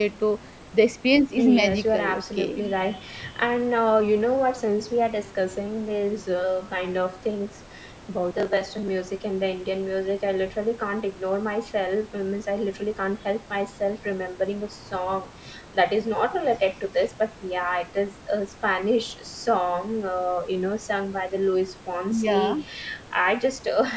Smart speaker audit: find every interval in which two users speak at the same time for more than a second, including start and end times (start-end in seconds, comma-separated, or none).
1.4-2.6